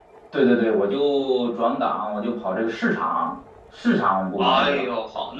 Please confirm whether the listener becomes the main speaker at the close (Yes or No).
Yes